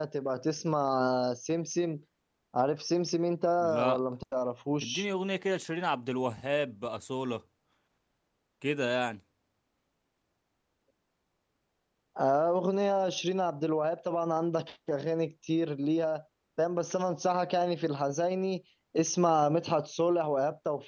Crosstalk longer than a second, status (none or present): none